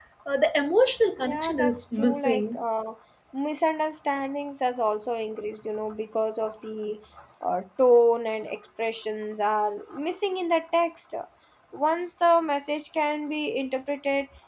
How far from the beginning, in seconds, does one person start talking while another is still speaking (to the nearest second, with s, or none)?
1 s